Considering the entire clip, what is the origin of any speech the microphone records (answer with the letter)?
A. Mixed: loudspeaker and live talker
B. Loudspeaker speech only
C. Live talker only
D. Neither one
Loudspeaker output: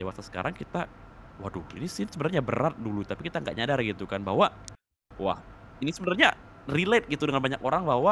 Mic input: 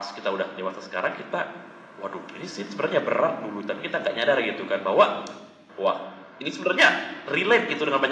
B